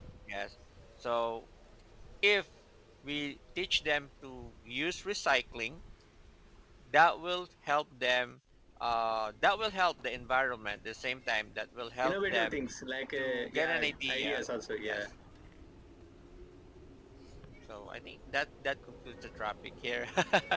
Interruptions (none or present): present